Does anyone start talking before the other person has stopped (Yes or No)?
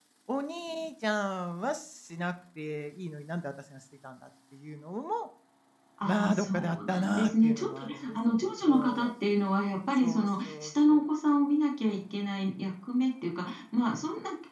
Yes